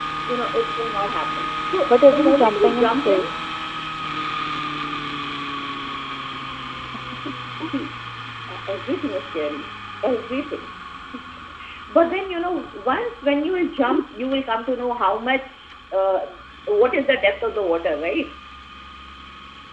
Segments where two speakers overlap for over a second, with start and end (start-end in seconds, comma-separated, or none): 1.9-3.2